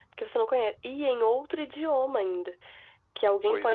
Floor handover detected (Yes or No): No